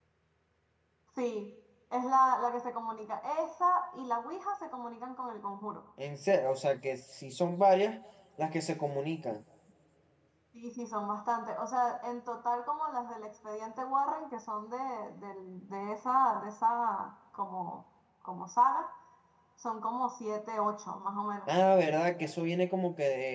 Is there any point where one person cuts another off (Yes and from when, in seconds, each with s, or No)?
No